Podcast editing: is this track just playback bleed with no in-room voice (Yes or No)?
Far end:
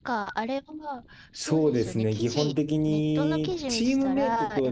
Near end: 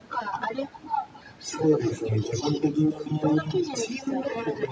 Yes